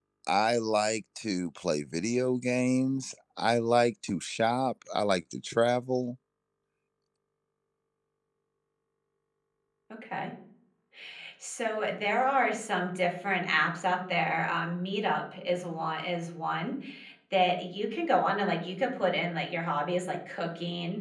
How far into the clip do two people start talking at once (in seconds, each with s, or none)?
none